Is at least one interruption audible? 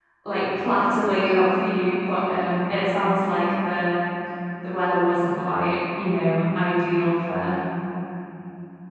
No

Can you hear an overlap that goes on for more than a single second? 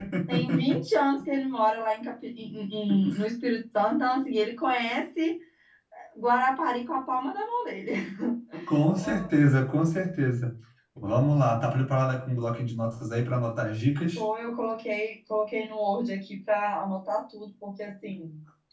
No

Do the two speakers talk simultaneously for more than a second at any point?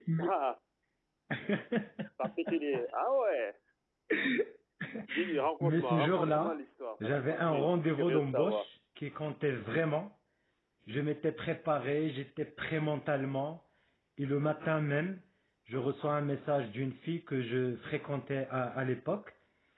Yes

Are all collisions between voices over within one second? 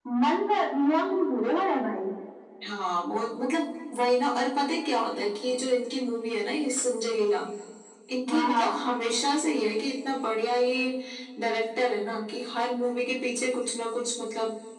Yes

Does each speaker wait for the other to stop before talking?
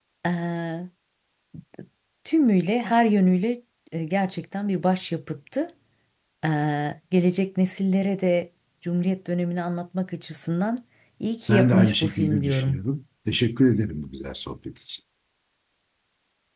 No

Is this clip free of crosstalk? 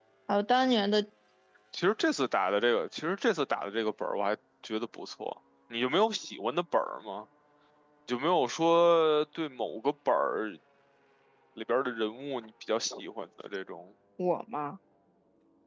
Yes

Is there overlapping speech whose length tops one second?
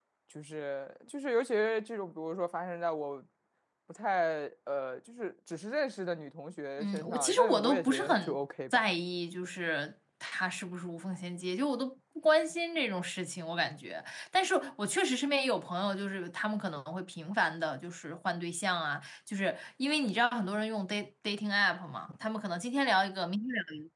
Yes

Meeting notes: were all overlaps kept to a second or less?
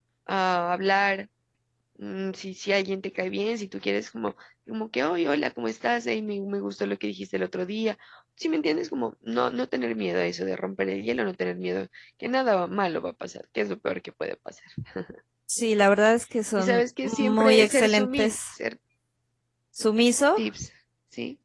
No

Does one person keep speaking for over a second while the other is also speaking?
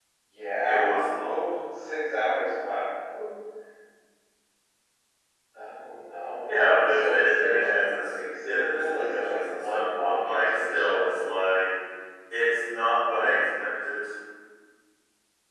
Yes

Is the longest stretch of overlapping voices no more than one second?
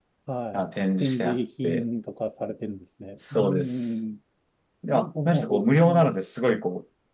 No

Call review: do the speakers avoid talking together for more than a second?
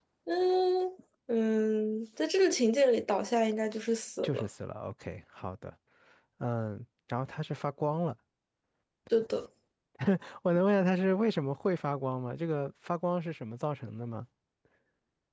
Yes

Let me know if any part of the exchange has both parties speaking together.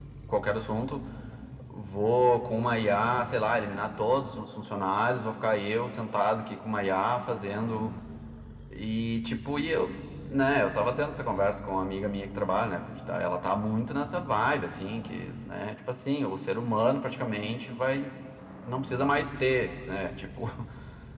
No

